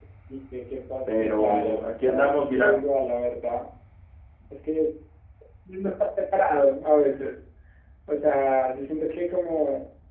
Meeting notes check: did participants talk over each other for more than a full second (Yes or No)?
Yes